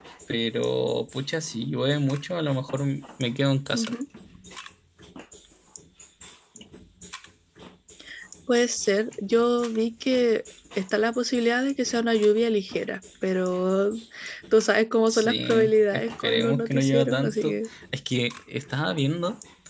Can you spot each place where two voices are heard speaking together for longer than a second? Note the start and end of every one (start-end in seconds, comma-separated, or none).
15.1-17.6